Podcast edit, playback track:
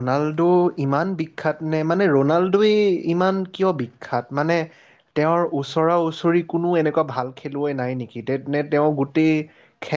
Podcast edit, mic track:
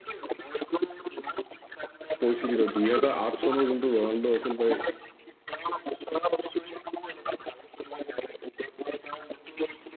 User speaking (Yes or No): Yes